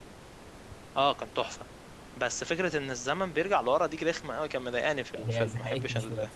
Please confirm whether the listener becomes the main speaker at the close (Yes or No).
Yes